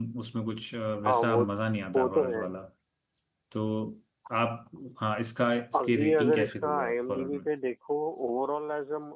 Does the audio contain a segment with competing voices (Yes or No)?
Yes